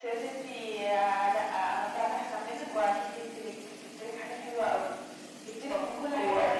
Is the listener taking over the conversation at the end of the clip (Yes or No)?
No